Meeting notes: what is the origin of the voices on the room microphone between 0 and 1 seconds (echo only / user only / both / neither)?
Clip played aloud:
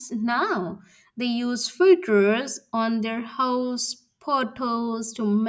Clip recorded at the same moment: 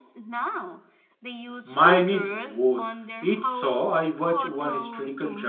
echo only